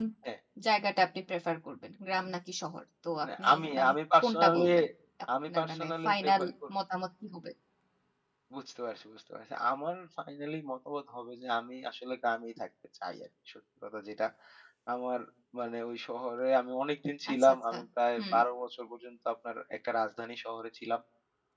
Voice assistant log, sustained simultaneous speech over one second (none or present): present